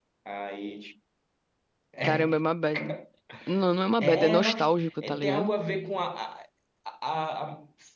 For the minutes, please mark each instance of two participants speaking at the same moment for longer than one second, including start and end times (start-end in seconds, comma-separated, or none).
4.0-5.5